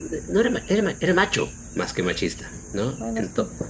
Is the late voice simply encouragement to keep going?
Yes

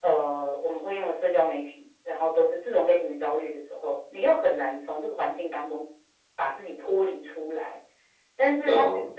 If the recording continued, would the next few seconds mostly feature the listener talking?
No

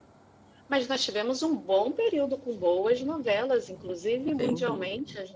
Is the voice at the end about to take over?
No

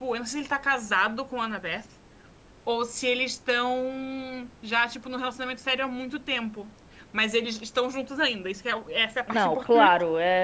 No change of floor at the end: No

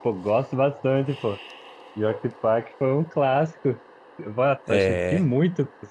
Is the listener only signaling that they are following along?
Yes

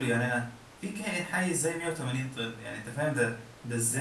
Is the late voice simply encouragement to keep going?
No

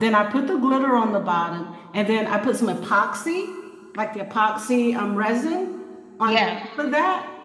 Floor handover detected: No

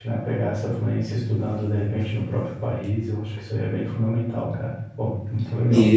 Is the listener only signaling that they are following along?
No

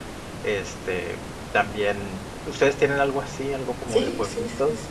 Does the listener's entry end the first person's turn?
Yes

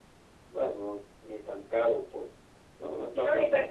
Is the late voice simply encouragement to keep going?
No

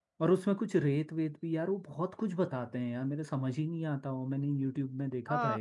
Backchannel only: No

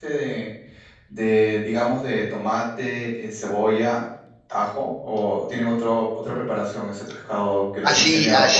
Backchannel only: No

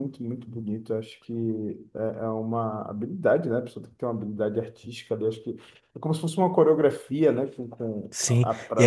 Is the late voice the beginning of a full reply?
Yes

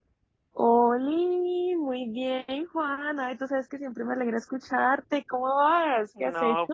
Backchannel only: No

